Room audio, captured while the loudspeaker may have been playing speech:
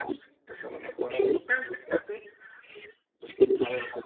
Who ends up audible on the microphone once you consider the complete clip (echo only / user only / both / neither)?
echo only